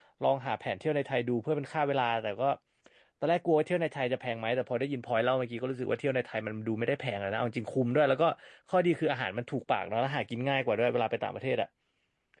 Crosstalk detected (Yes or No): No